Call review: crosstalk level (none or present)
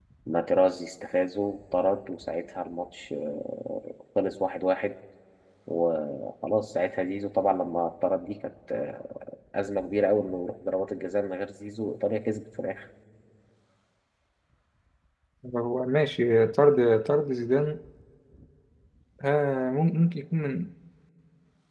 none